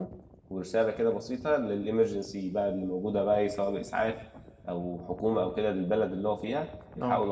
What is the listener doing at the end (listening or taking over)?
listening